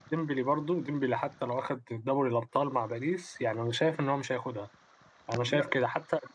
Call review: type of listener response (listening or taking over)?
listening